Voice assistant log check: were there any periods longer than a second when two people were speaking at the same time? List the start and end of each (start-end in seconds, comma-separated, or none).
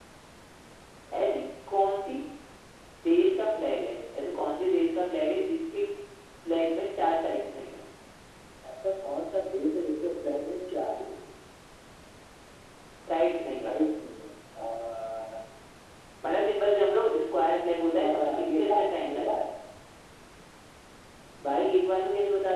17.9-19.3